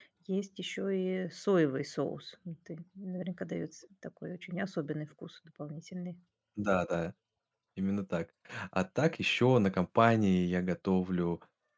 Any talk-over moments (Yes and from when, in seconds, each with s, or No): No